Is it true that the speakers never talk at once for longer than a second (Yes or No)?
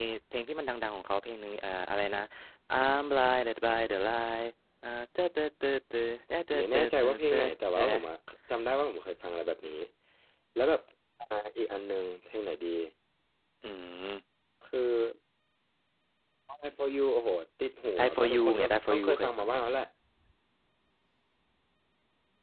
No